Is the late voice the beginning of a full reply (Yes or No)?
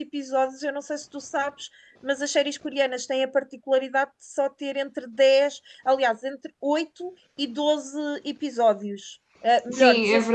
Yes